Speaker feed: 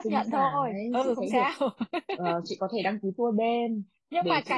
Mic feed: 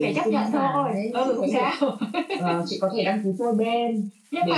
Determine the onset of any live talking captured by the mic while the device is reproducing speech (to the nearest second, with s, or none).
none